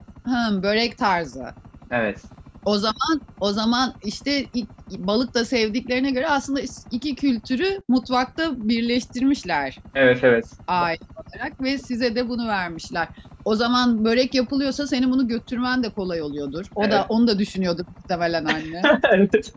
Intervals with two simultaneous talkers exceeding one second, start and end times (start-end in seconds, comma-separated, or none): none